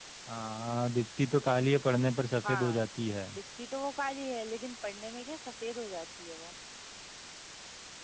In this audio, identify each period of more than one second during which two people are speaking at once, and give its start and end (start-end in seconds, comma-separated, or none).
none